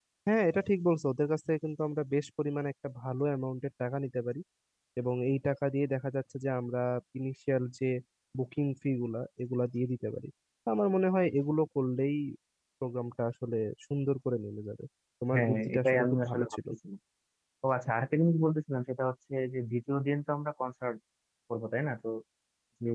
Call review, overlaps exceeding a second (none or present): present